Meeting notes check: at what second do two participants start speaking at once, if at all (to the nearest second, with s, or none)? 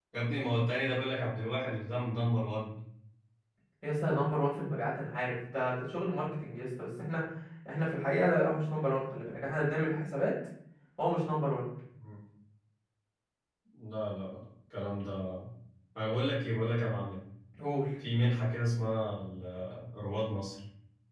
none